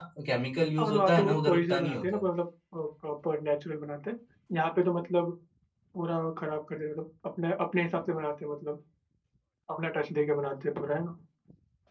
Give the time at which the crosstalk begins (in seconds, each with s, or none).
0.8 s